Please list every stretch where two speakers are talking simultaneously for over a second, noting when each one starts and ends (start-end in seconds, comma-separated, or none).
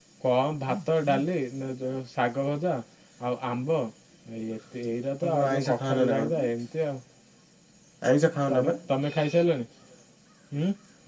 5.2-6.5